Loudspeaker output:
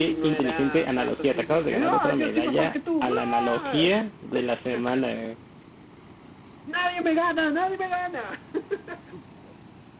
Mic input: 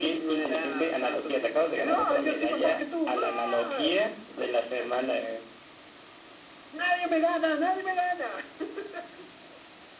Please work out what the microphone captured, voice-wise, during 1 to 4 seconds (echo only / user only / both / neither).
echo only